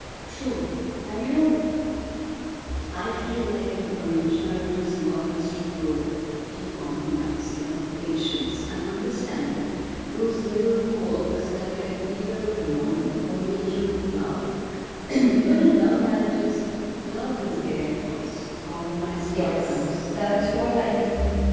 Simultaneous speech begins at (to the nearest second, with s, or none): 19 s